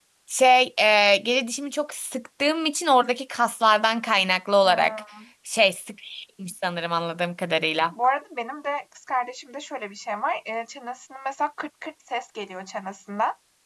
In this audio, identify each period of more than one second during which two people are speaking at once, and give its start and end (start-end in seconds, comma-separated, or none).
none